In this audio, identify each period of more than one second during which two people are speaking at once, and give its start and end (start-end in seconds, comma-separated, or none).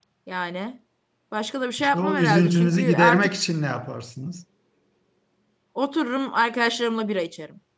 1.8-3.3